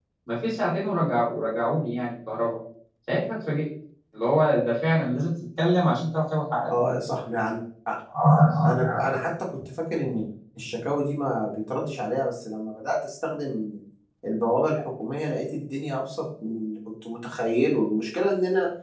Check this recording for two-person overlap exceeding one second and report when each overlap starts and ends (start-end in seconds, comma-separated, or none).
none